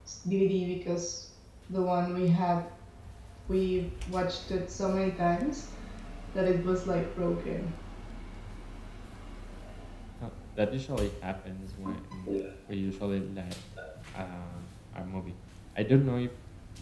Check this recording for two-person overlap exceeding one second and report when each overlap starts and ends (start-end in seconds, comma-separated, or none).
none